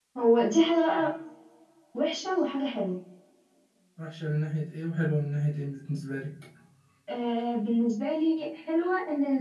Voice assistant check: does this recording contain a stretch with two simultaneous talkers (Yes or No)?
No